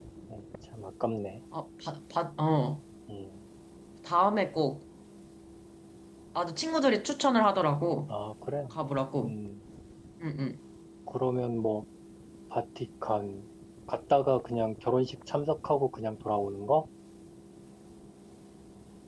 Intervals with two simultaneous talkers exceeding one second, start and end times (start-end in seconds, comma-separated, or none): none